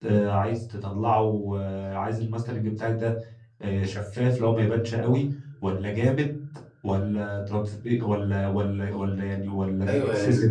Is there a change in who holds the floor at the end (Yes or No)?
Yes